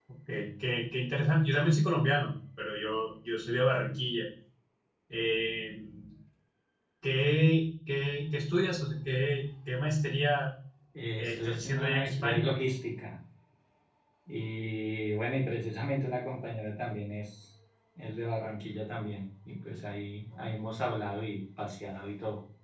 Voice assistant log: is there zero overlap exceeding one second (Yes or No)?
No